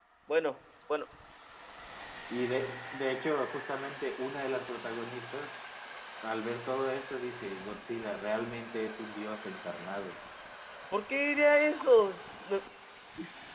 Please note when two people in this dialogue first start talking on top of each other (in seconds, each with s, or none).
none